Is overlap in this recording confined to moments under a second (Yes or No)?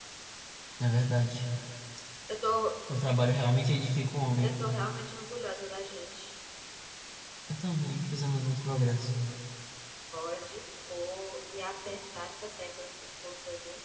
Yes